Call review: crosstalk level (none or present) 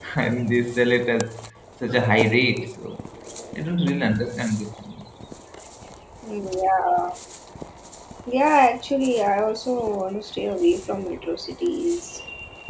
none